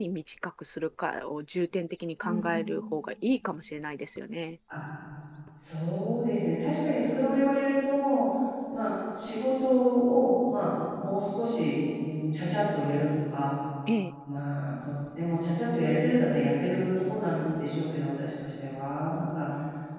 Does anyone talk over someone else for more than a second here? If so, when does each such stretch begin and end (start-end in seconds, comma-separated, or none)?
none